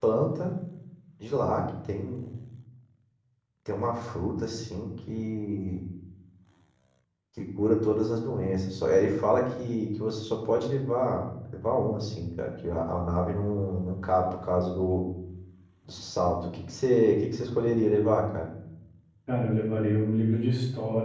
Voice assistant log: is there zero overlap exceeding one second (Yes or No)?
Yes